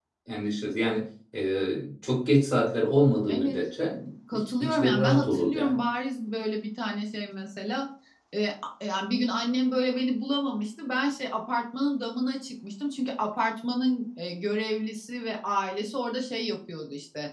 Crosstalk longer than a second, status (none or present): present